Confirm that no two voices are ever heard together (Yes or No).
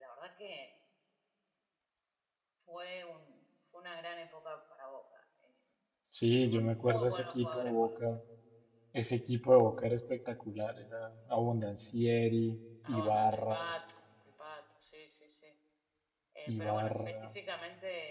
No